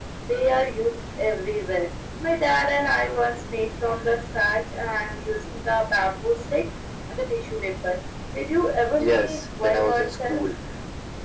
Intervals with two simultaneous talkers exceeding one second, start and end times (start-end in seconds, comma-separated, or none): 9.0-10.5